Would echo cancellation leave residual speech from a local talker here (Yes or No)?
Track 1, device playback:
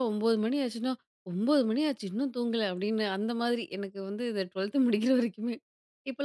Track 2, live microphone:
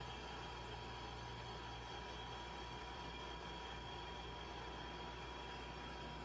No